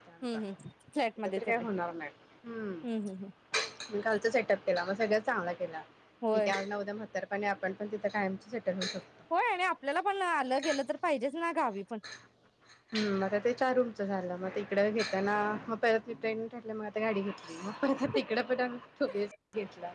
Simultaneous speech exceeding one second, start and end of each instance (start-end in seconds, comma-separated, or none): none